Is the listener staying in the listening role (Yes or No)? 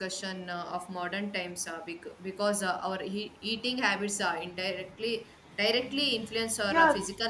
No